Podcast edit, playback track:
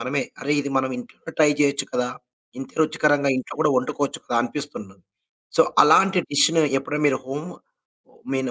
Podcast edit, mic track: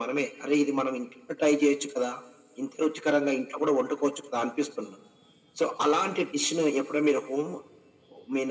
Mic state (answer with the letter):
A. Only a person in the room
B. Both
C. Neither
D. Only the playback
D